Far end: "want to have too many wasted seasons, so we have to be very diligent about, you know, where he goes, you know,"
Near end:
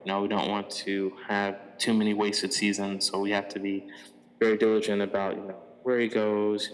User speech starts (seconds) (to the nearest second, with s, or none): none